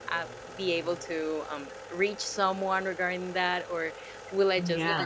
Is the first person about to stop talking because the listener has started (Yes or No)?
No